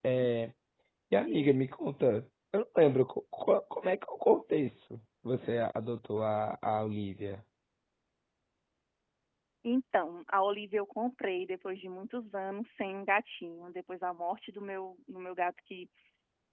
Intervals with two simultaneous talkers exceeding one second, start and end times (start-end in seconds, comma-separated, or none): none